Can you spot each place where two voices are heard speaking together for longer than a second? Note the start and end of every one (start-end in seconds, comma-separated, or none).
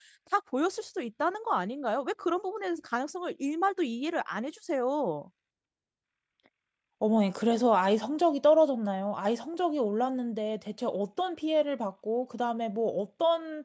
none